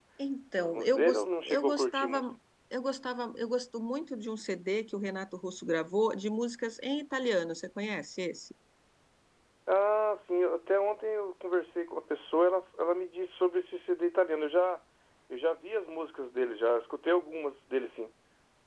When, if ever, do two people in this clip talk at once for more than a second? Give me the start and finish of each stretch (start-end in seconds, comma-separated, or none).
0.6-2.2